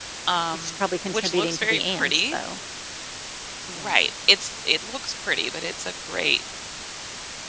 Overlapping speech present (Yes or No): Yes